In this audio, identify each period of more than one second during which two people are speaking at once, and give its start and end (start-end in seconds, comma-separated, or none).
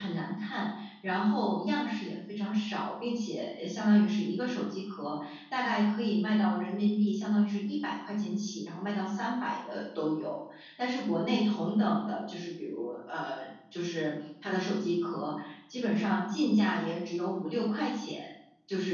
none